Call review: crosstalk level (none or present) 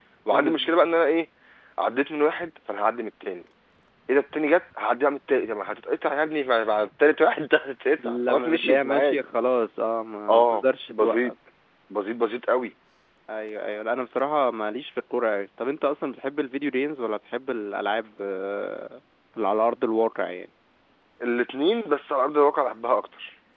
present